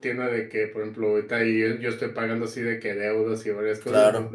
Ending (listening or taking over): listening